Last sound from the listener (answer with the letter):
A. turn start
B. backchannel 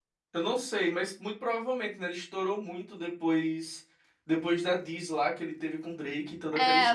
A